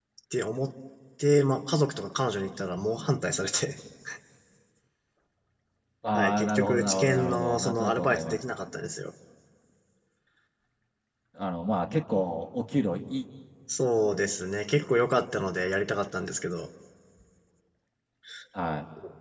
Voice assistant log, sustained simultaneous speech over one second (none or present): present